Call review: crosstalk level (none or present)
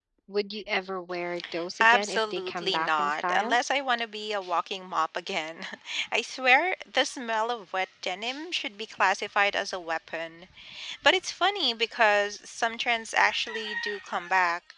present